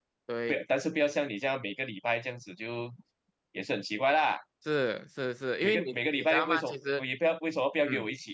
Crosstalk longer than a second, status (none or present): present